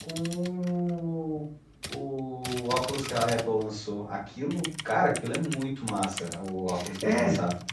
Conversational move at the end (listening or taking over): taking over